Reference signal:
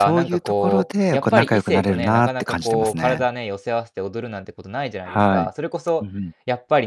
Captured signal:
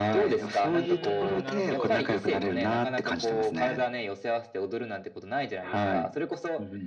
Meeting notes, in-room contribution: present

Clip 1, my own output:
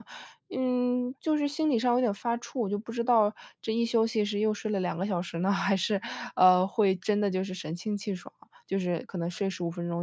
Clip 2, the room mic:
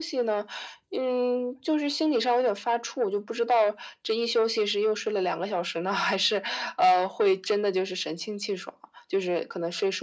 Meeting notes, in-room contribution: none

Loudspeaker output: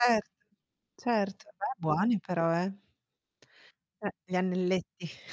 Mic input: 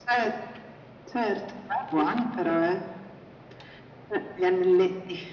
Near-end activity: none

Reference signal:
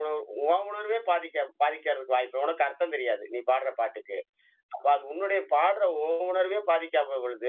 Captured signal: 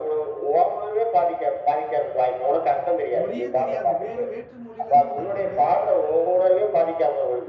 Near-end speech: present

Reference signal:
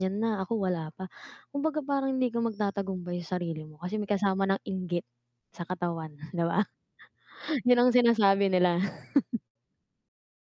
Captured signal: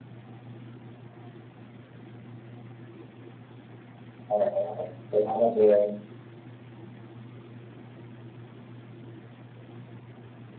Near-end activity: present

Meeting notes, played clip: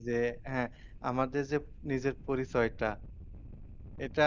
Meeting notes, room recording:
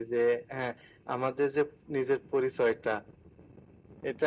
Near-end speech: none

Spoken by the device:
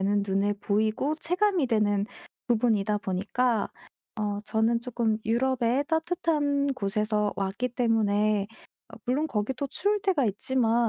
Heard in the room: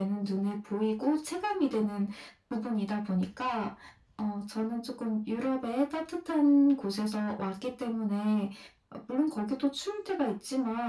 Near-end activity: none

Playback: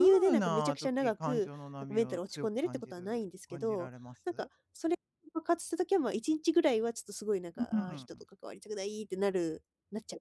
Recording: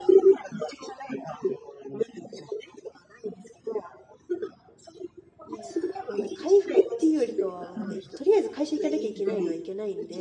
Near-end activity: present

